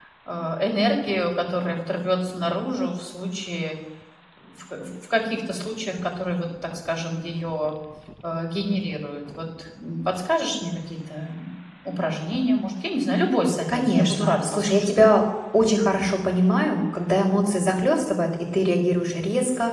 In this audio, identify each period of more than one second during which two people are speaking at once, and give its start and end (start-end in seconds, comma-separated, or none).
13.7-14.9